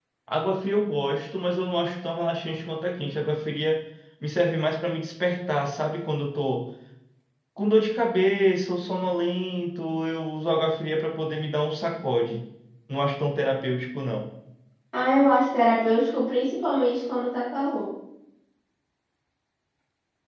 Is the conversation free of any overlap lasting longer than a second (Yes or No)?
Yes